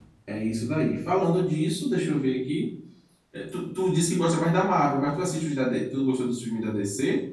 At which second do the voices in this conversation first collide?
none

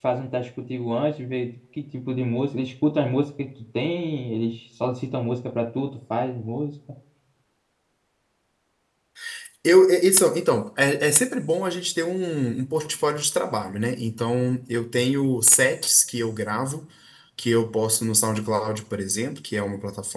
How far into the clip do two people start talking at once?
none

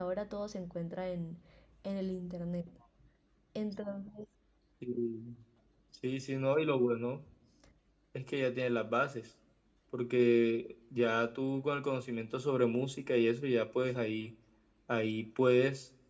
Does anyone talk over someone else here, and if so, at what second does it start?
none

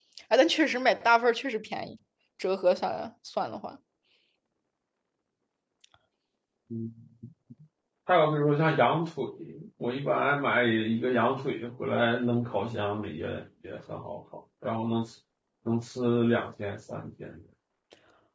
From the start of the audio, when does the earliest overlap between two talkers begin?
none

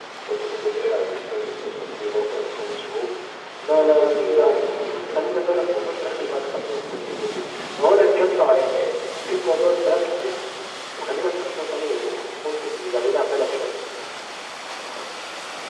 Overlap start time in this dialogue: 3.6 s

